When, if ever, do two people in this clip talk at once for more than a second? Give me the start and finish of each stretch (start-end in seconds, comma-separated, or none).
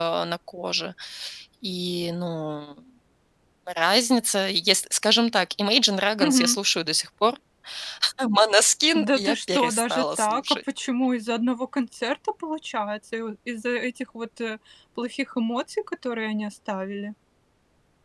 8.9-10.6